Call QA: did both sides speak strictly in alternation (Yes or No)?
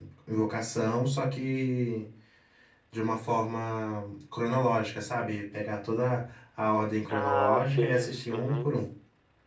No